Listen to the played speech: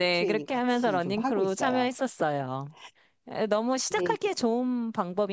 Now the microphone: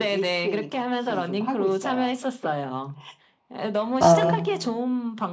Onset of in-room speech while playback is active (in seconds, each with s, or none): 4.0 s